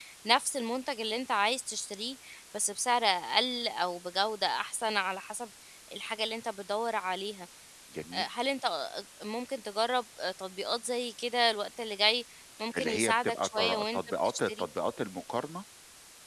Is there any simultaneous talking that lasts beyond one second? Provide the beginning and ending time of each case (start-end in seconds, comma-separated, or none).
12.8-14.7